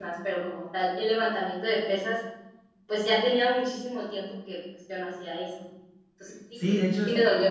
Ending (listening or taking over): taking over